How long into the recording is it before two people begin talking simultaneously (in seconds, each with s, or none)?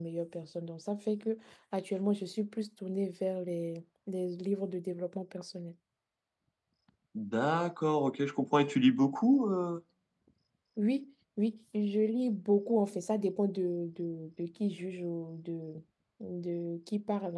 none